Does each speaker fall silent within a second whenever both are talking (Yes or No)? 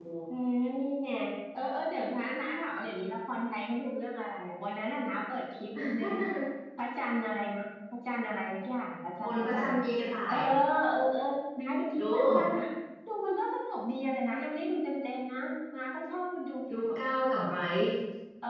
Yes